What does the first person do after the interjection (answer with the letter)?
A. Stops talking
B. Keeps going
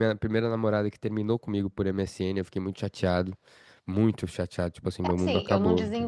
A